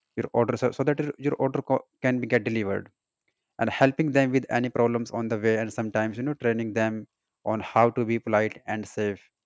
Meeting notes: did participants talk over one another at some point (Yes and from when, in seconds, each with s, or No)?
No